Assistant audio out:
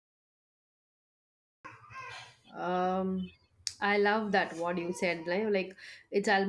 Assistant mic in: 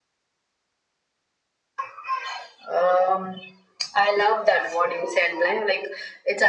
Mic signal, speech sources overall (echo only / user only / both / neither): echo only